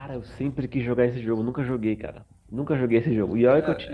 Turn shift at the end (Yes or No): No